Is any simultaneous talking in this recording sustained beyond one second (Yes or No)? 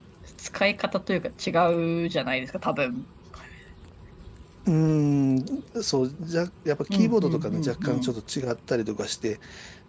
Yes